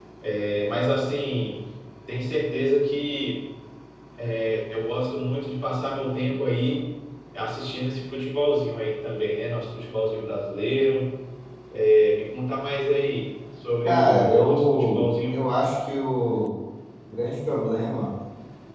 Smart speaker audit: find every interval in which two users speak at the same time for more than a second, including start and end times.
13.8-15.5

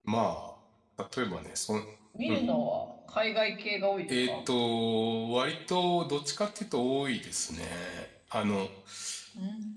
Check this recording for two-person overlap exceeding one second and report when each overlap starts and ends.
none

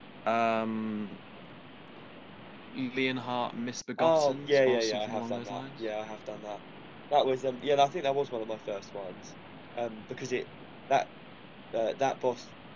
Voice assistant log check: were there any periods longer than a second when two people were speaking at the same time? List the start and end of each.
4.0-5.9

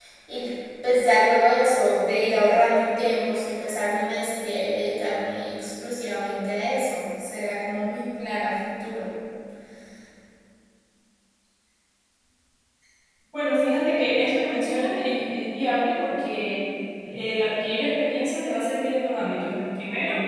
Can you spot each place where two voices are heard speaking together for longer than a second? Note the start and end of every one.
none

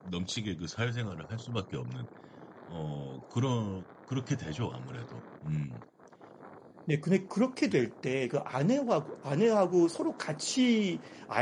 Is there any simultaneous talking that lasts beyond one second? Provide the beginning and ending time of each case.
none

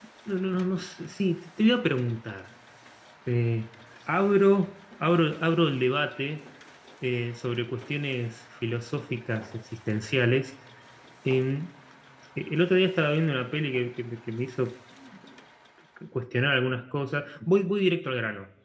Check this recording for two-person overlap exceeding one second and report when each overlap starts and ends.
none

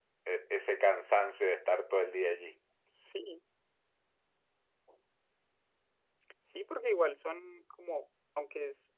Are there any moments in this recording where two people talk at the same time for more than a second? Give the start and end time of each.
none

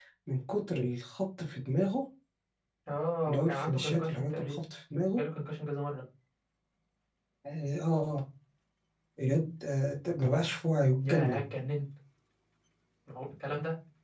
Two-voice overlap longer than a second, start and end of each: 3.3-4.5

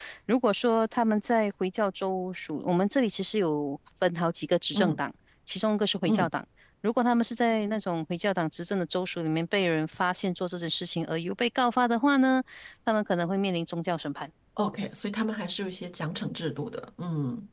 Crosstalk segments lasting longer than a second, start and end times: none

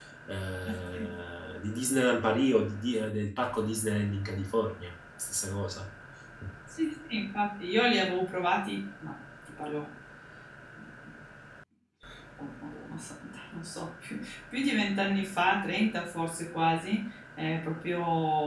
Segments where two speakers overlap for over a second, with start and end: none

